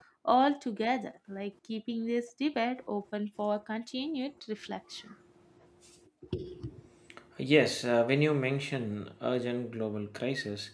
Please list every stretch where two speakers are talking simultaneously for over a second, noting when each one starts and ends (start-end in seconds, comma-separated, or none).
none